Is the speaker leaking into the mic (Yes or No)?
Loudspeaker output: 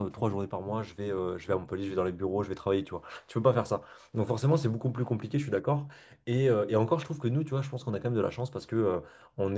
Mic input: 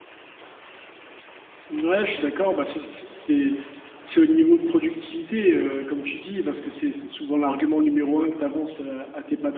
No